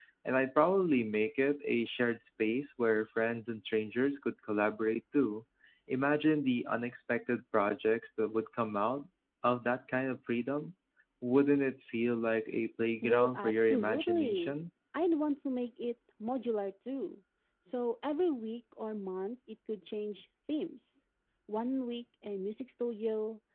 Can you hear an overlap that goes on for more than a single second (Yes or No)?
Yes